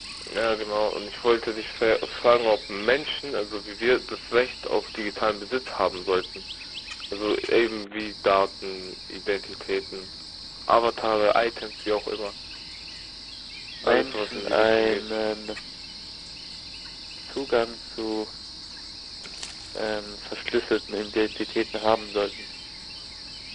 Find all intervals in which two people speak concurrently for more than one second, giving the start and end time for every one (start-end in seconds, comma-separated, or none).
13.8-15.1